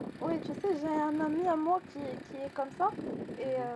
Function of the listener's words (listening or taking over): listening